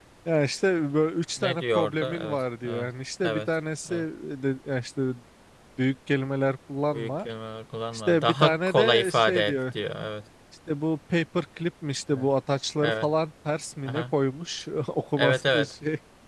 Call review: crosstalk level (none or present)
present